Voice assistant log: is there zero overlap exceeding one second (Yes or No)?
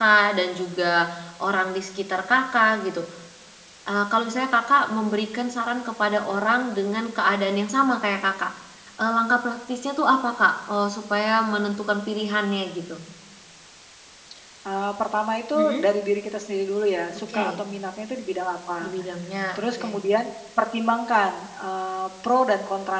Yes